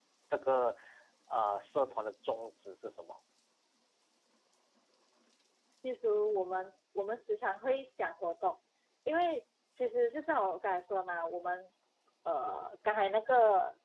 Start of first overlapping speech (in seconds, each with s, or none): none